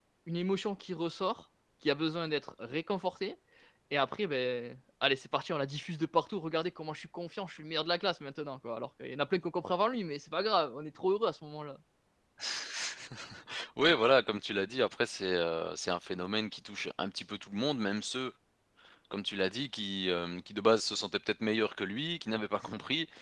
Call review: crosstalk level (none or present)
none